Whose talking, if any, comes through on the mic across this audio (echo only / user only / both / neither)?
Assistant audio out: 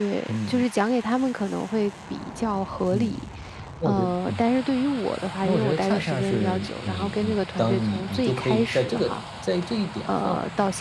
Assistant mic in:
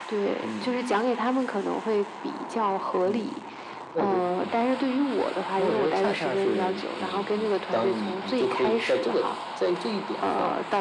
echo only